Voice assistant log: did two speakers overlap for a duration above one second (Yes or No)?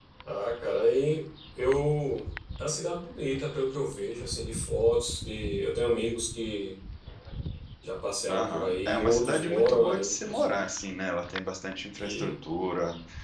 Yes